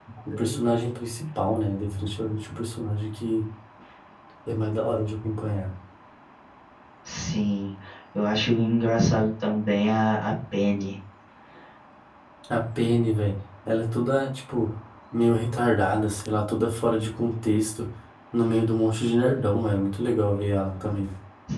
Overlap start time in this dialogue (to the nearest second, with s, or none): none